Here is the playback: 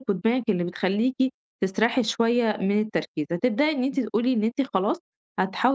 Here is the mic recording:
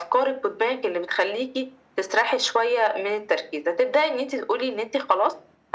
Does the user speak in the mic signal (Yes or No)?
No